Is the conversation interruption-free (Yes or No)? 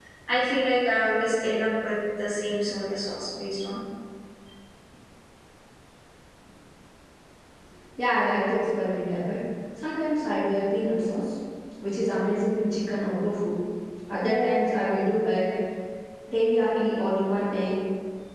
Yes